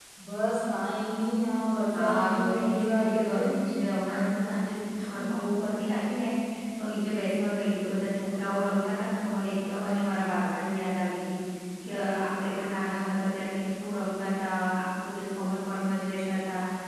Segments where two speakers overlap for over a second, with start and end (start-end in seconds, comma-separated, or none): 1.9-3.5